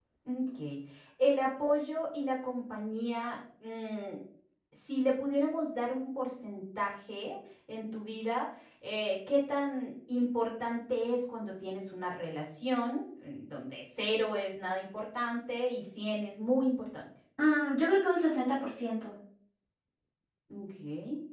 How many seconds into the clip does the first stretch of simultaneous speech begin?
none

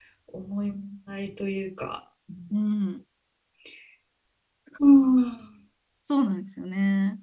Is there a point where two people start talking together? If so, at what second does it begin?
none

